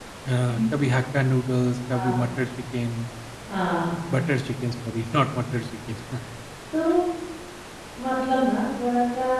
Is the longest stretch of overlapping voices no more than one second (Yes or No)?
Yes